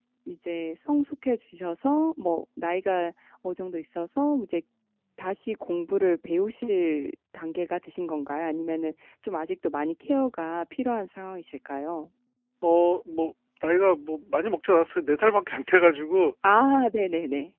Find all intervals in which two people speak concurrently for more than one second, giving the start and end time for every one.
none

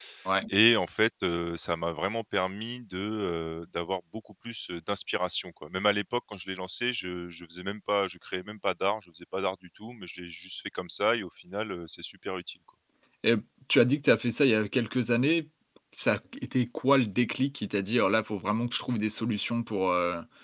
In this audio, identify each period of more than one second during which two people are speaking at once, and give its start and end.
none

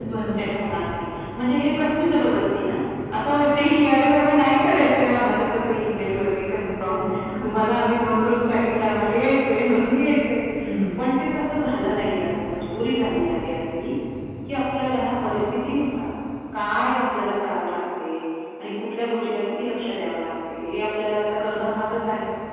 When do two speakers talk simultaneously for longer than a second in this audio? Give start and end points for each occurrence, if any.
none

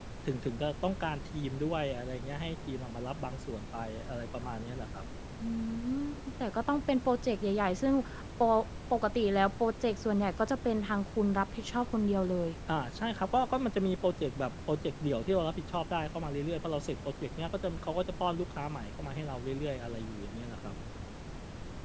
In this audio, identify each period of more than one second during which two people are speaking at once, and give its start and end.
none

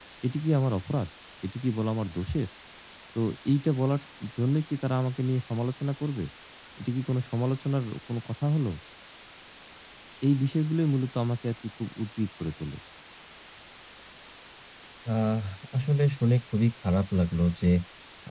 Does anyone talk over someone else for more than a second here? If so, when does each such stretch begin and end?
none

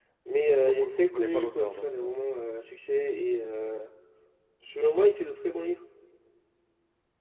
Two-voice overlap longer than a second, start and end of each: 0.5-2.1

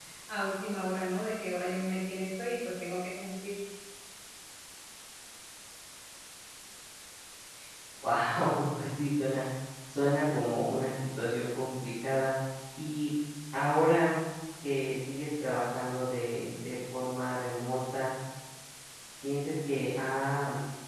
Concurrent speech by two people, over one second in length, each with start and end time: none

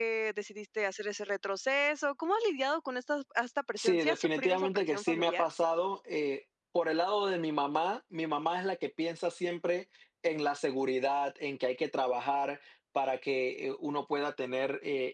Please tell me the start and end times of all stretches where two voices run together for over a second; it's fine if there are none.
3.8-5.5

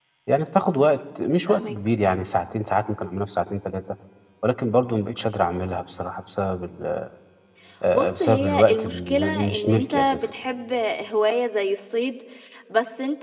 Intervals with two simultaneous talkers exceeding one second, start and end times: 7.9-10.3

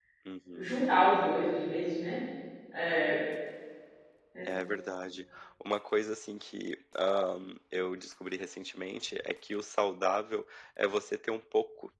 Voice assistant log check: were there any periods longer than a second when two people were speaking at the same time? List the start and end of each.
none

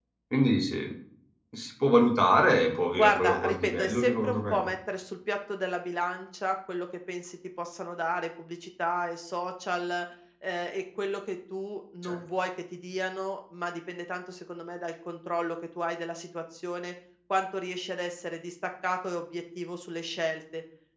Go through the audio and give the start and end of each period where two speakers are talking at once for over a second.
3.0-4.6

